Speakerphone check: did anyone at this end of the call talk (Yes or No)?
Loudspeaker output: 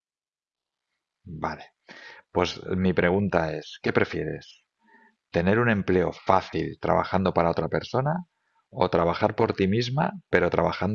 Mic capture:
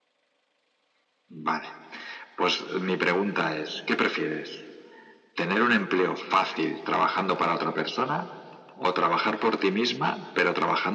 No